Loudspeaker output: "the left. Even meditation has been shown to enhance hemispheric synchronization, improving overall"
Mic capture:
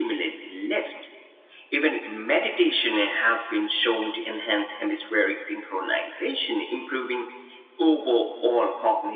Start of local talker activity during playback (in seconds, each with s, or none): none